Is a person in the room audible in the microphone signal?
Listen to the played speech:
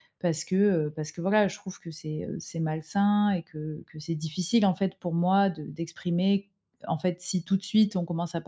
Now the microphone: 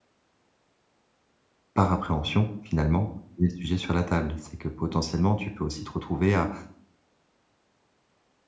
Yes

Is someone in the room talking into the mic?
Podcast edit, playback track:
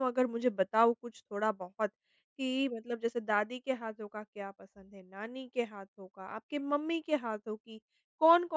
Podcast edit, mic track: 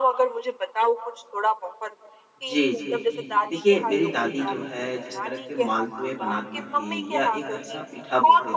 Yes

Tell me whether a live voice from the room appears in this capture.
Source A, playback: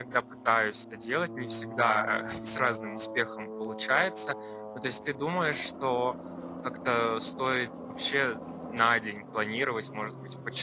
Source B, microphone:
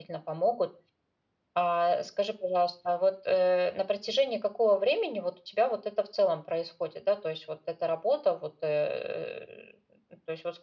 Yes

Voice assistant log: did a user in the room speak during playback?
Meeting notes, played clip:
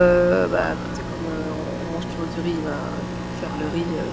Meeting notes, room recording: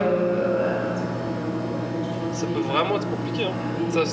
Yes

